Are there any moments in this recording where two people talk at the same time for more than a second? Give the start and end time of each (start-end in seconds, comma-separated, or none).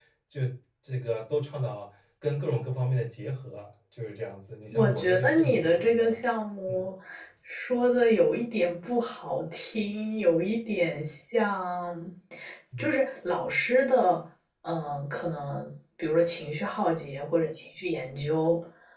4.7-6.2